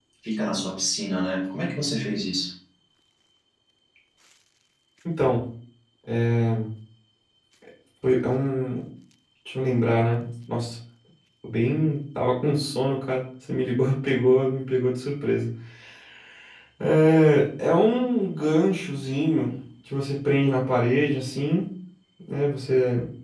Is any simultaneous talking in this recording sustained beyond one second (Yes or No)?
No